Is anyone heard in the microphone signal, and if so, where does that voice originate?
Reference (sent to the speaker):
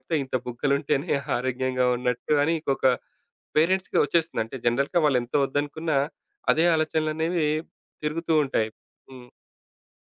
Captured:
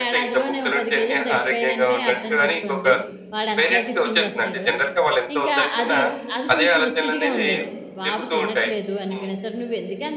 both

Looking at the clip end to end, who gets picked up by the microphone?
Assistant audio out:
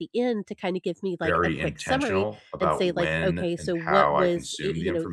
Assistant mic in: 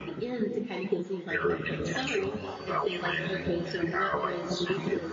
echo only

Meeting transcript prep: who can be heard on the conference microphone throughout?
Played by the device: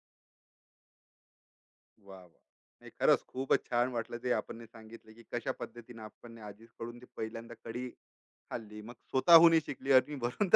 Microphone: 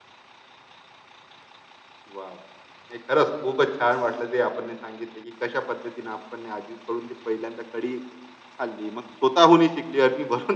echo only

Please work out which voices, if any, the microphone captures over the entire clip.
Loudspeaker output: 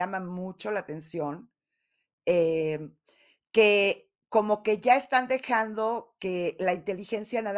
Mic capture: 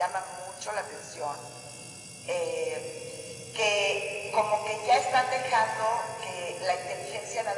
echo only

